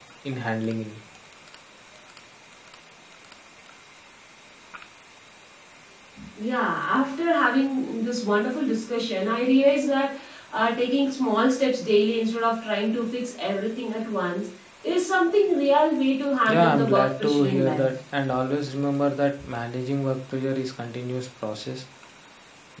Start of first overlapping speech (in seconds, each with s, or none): 16.4 s